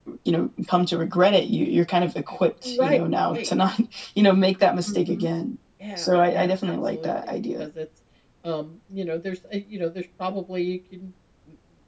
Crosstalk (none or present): present